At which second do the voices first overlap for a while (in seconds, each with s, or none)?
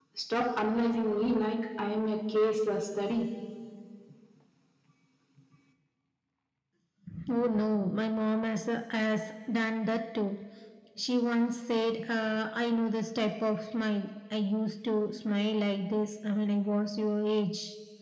none